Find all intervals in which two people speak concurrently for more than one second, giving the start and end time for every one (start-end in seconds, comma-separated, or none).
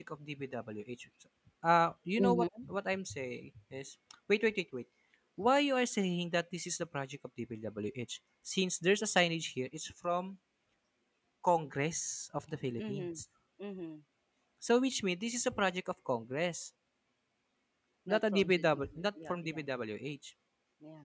18.1-19.6